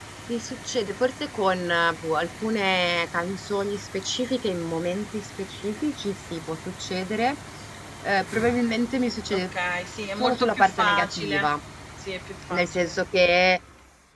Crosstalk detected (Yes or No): Yes